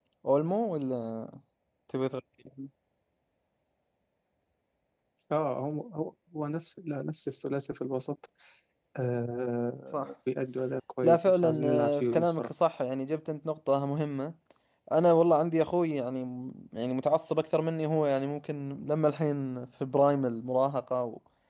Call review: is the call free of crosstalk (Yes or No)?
No